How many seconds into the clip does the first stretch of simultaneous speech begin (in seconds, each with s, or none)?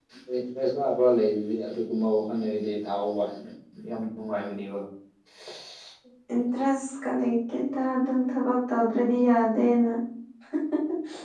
none